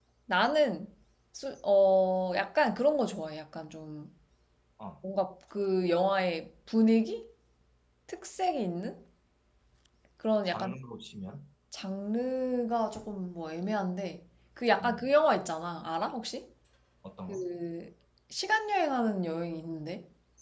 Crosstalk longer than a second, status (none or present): none